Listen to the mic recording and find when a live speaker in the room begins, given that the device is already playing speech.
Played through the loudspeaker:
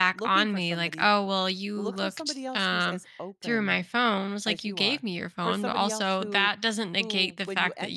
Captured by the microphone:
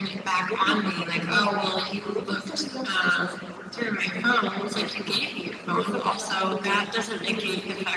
1.2 s

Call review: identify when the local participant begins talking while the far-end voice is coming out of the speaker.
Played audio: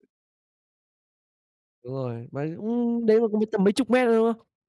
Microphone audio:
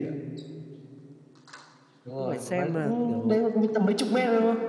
2.0 s

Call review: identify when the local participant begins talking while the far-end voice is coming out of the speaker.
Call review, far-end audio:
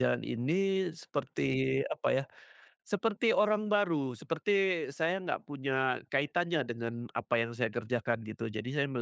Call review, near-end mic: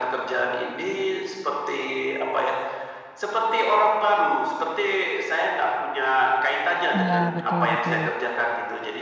6.9 s

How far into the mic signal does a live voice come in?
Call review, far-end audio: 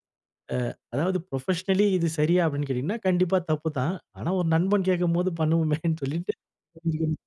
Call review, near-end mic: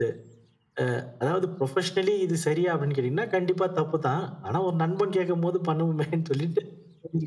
none

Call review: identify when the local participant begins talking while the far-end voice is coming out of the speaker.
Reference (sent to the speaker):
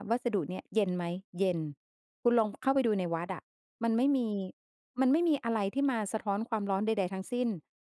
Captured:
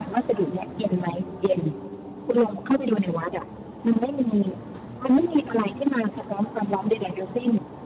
none

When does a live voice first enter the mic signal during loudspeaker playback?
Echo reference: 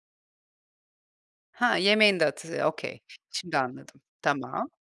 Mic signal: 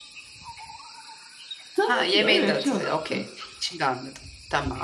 1.7 s

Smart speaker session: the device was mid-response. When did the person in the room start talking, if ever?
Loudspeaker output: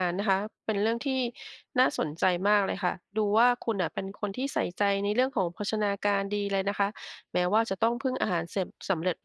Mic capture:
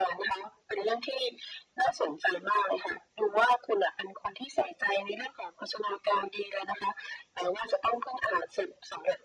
none

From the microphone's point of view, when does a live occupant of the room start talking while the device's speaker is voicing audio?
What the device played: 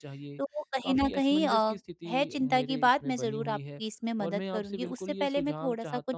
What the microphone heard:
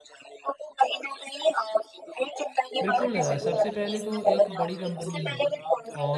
2.8 s

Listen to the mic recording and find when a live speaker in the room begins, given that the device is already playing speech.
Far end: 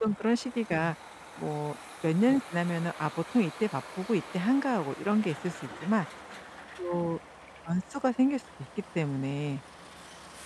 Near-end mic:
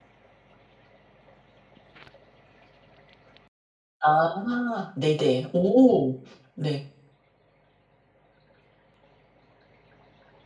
4.0 s

